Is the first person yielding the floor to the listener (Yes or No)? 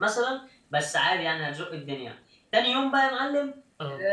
No